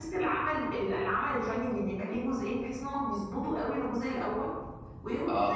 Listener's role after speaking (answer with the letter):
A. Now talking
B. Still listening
B